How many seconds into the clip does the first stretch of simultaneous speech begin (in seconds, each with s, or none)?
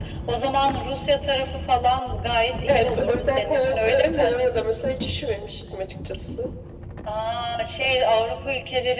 2.7 s